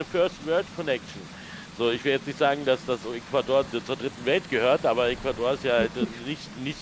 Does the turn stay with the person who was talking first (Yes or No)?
Yes